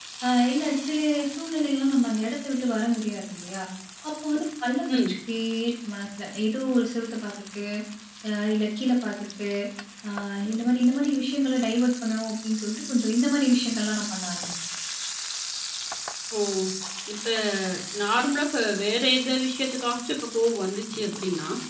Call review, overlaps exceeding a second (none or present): none